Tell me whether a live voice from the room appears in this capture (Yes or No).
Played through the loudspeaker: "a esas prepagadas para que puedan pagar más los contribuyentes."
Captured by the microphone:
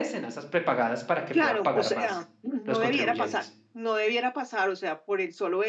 Yes